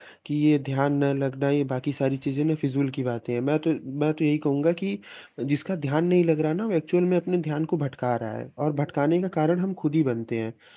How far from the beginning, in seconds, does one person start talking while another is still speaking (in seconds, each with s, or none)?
none